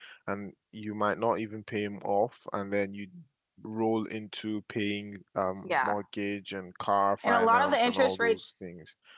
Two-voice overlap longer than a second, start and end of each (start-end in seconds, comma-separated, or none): 7.2-8.5